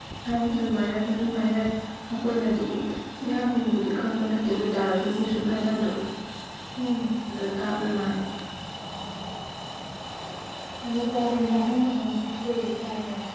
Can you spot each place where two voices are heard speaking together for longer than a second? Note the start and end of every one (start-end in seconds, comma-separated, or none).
none